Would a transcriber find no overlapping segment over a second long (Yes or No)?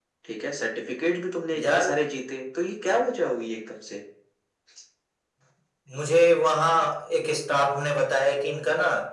Yes